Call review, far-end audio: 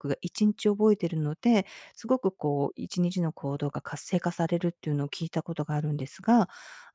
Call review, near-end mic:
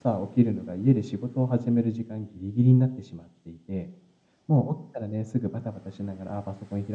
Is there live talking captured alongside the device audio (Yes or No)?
Yes